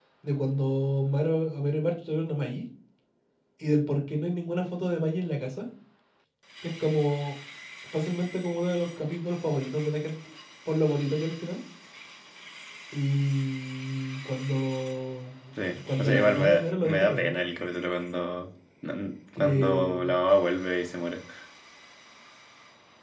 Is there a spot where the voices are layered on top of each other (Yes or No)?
Yes